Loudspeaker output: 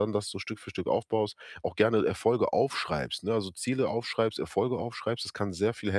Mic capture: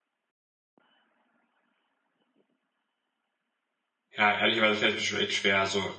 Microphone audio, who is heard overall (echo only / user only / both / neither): user only